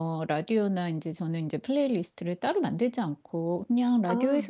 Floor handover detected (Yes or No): No